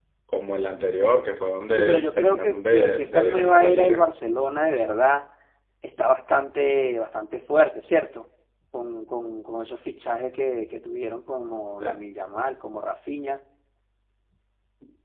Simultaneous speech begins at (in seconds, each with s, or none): 1.7 s